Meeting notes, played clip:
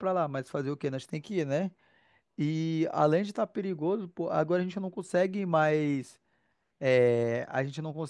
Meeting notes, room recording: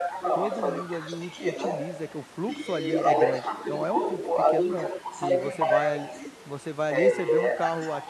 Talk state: both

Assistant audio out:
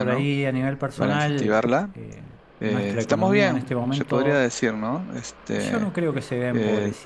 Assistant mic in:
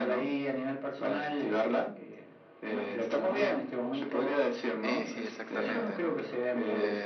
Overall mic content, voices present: both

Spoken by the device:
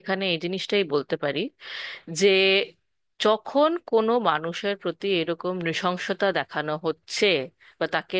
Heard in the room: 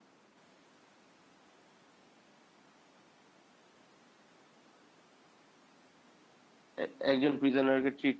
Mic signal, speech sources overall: user only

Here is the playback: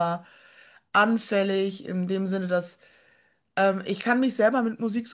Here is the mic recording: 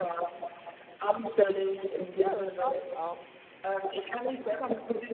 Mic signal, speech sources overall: both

